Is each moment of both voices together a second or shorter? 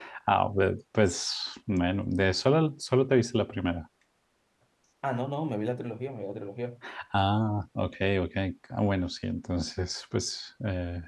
Yes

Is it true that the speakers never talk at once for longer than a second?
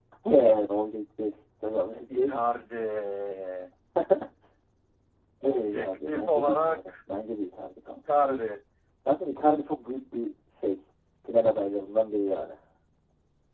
No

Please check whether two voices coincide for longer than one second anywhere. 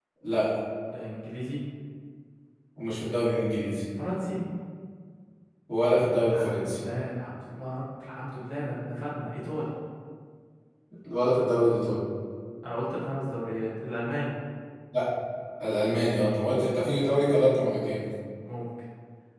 No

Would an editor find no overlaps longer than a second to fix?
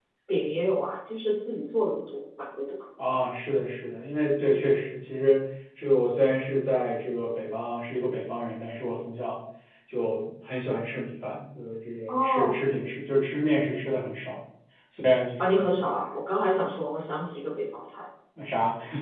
Yes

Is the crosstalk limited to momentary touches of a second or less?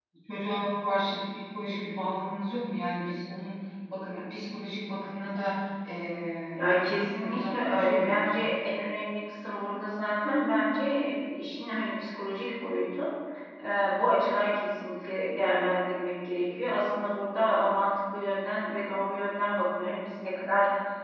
No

